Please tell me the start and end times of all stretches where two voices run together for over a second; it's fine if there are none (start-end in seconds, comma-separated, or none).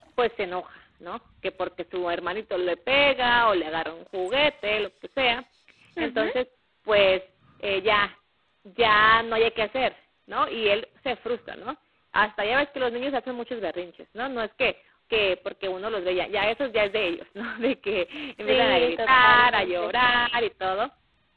18.5-19.9